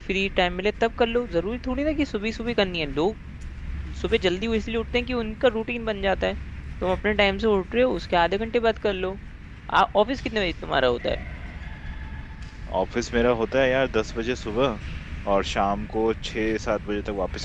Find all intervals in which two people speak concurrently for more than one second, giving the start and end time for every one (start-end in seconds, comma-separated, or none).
none